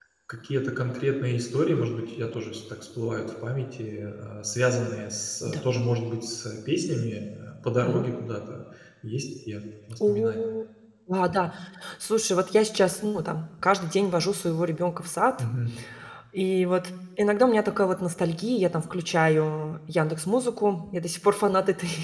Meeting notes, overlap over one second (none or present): none